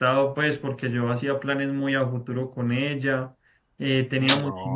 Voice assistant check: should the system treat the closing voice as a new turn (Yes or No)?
No